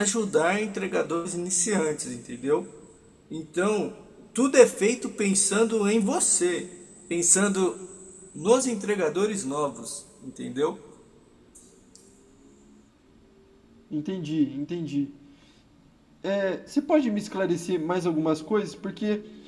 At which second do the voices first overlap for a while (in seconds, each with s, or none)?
none